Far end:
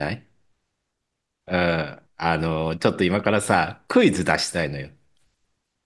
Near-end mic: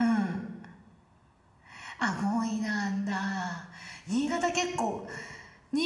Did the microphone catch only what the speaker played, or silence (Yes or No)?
No